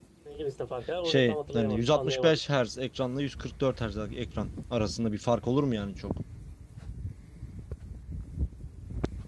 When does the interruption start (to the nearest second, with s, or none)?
1 s